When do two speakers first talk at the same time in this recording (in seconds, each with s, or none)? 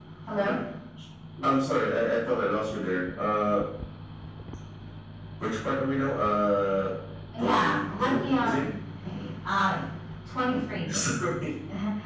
7.4 s